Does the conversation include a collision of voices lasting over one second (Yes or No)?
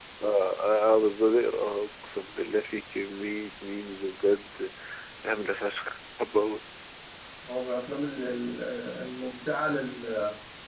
No